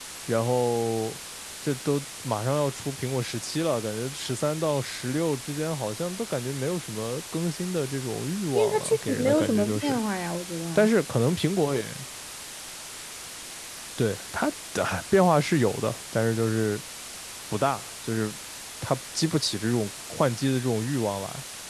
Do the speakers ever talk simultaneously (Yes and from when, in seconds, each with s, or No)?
Yes, from 8.6 s